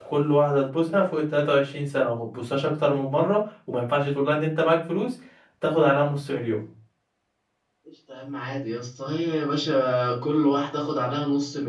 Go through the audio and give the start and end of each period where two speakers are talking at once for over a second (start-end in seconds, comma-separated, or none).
none